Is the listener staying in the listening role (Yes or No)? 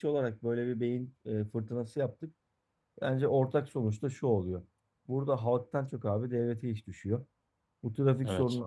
Yes